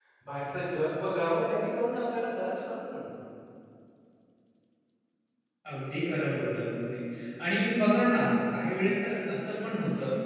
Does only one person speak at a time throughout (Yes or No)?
Yes